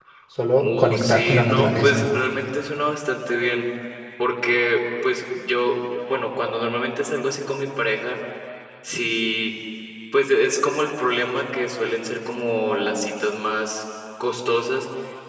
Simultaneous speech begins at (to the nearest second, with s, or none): 1 s